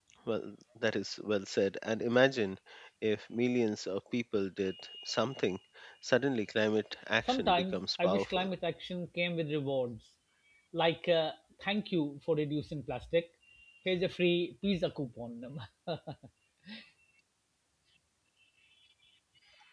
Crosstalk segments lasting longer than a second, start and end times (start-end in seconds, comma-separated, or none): 7.2-8.5